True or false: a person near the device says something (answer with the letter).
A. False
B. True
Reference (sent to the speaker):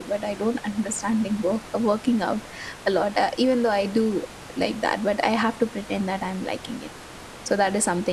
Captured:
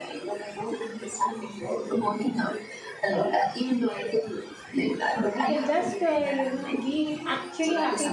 B